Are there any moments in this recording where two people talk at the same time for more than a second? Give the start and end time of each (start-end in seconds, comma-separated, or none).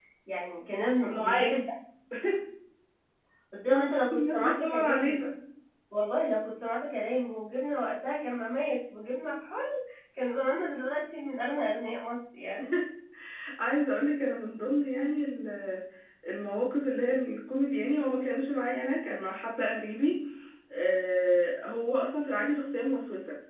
3.7-5.2